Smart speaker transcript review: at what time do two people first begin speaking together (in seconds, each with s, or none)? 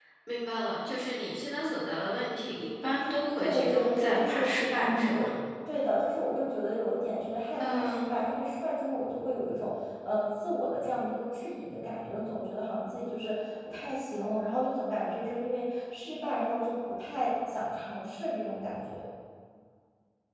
3.4 s